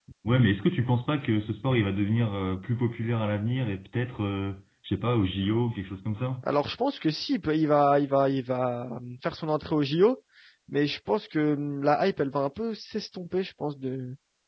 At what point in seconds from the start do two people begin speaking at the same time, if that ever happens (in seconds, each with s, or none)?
none